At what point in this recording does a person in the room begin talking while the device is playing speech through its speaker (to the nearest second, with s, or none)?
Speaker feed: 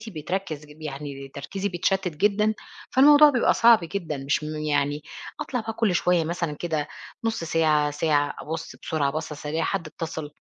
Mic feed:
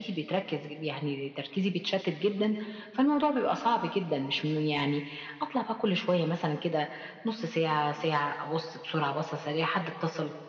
none